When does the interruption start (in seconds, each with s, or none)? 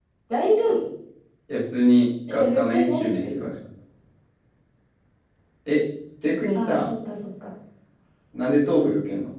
2.3 s